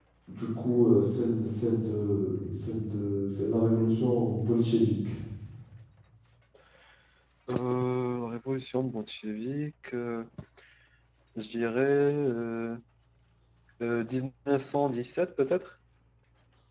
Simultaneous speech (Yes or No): No